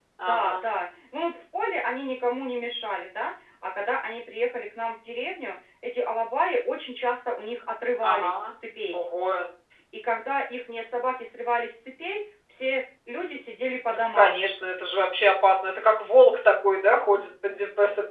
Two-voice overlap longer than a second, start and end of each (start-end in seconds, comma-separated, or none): none